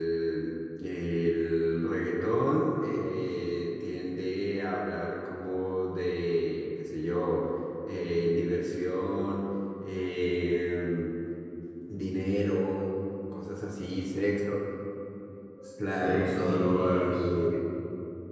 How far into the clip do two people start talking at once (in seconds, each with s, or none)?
15.9 s